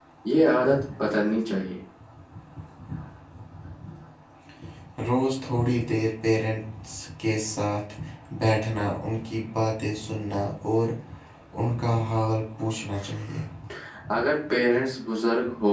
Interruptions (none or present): none